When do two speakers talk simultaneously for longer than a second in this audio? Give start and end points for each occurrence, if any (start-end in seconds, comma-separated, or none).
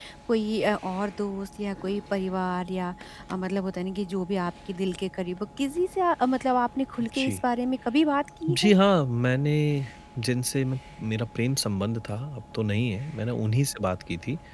none